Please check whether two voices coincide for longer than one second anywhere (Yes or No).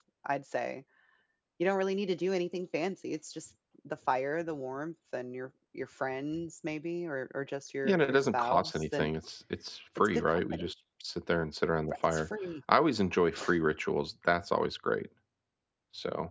Yes